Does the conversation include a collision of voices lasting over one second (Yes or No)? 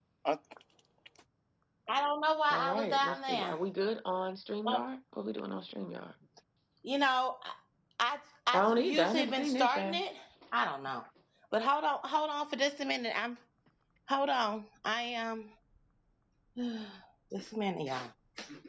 Yes